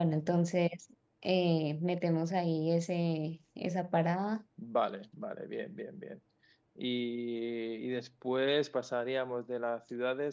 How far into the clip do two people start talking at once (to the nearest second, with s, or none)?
none